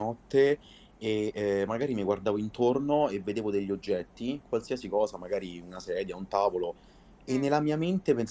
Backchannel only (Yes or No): Yes